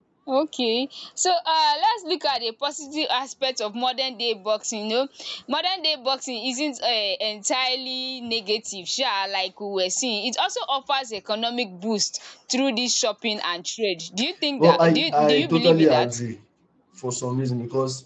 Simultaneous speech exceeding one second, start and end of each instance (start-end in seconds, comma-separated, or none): 14.6-16.1